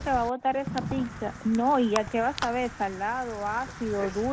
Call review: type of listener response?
taking over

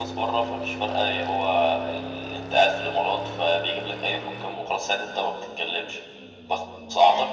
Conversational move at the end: listening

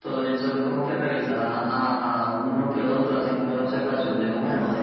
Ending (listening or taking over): taking over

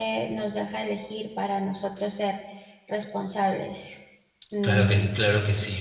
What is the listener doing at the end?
taking over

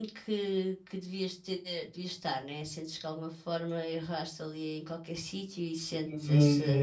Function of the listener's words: taking over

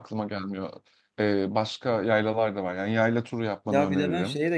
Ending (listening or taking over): taking over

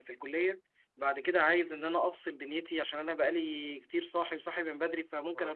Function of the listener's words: listening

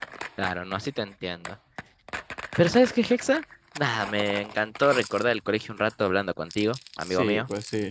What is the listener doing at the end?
taking over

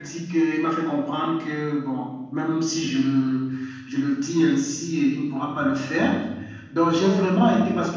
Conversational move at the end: listening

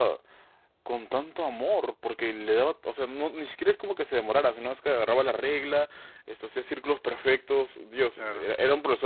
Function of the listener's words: listening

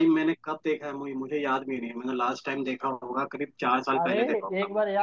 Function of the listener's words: taking over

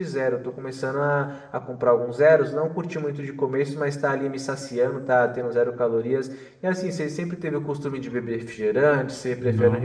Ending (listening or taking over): taking over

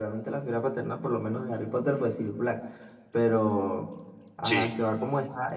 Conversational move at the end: listening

